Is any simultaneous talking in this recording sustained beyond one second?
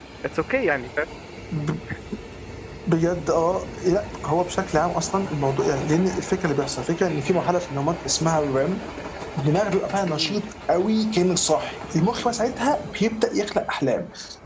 No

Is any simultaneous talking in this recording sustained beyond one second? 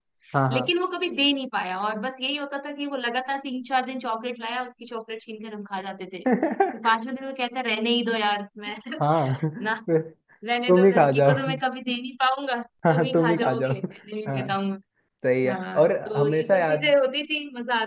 Yes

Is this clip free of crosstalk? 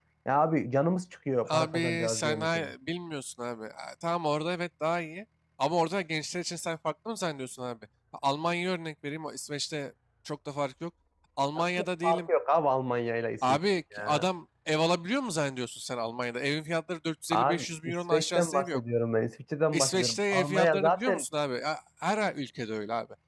No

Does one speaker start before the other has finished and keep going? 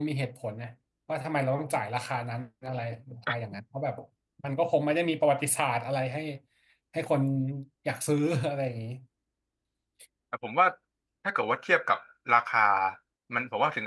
No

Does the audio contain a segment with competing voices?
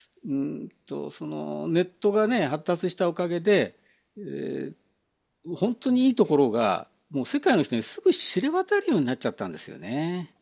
No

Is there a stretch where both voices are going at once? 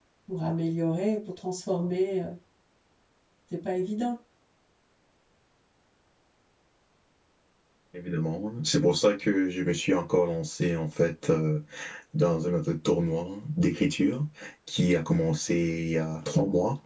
No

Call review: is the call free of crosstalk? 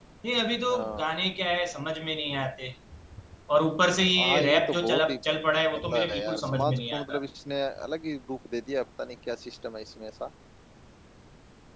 No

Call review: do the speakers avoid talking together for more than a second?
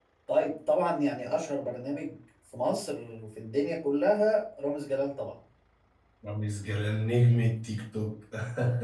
Yes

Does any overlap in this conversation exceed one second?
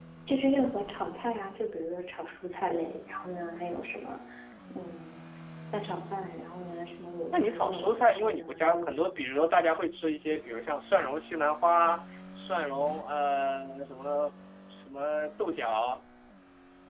Yes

